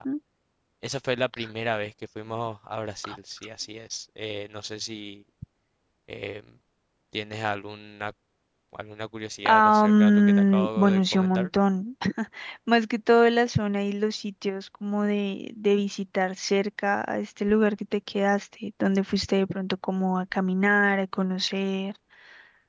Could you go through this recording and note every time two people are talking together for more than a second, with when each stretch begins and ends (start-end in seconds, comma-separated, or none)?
9.5-11.5